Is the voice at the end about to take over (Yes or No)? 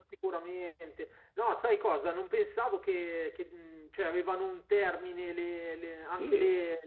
No